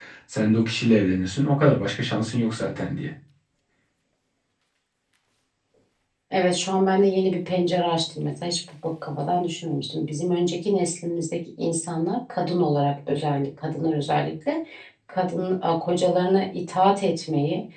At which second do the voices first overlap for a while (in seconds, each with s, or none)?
none